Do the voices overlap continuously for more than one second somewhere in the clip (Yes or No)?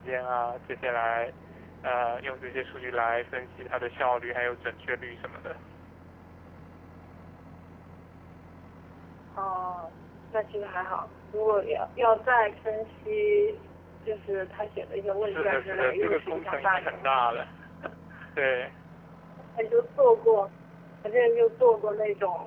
Yes